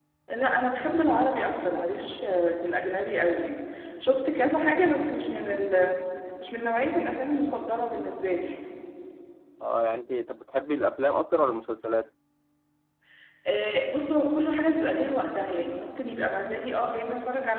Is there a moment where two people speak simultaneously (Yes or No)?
No